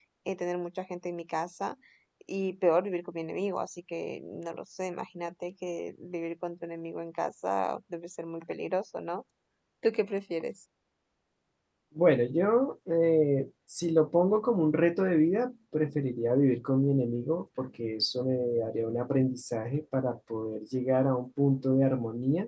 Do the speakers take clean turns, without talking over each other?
Yes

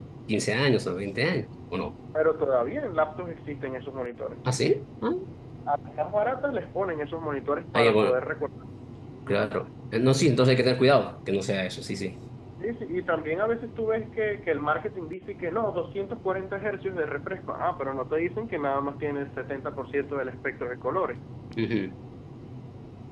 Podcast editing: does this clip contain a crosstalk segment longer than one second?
No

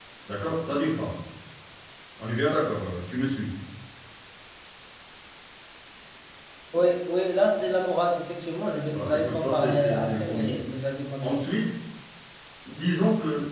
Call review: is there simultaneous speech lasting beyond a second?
Yes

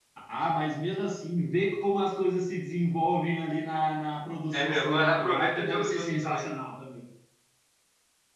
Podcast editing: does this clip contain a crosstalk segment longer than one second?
Yes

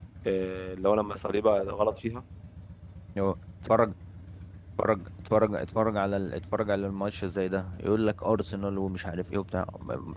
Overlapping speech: No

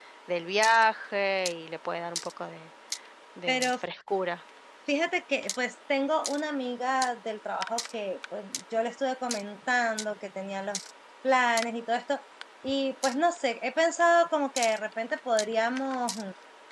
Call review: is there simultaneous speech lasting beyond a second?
No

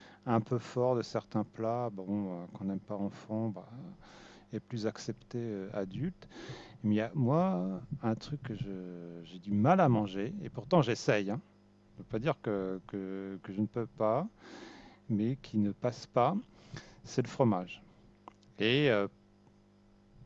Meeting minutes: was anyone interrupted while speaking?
No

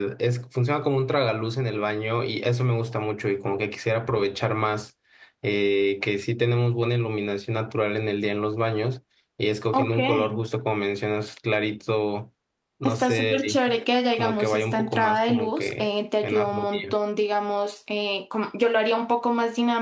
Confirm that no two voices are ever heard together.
No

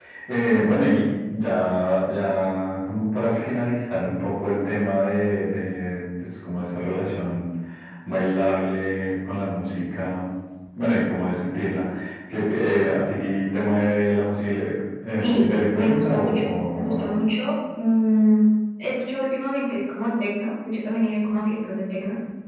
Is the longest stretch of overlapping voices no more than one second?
No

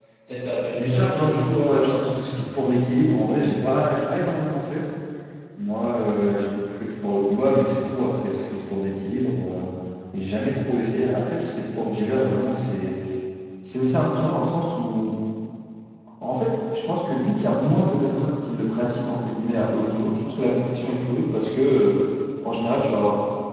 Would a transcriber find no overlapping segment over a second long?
No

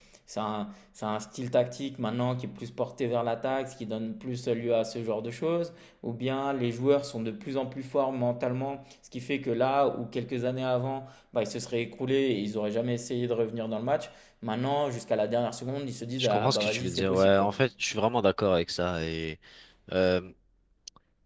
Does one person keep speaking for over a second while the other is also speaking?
Yes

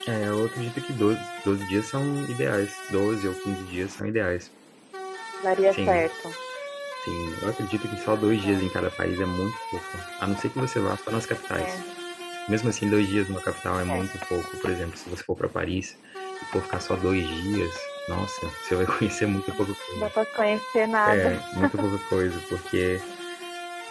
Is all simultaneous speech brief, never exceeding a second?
Yes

